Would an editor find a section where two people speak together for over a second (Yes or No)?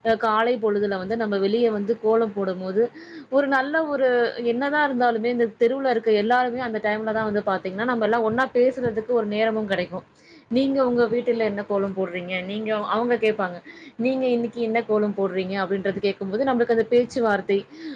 No